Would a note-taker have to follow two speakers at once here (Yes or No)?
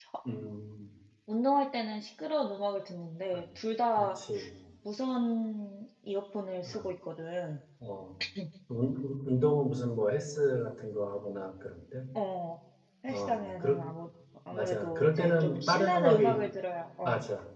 Yes